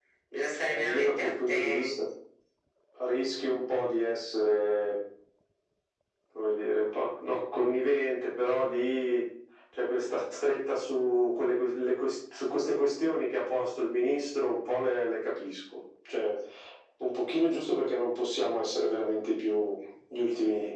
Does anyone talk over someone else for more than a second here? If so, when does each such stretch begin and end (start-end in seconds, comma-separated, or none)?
0.6-2.0